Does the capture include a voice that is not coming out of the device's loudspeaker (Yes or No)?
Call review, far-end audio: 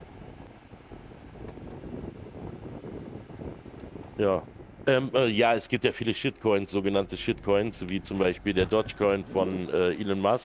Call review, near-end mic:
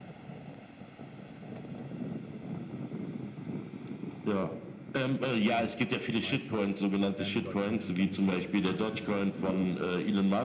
Yes